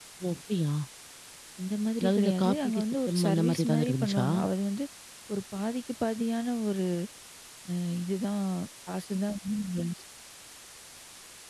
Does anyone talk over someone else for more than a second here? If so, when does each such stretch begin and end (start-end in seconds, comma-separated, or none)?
2.0-4.3